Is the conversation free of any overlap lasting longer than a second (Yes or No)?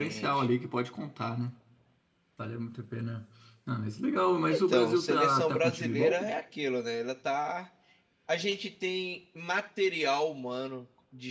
No